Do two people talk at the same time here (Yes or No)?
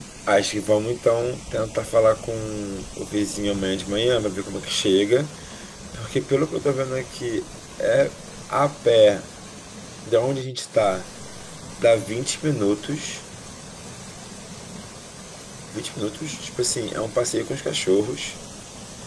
No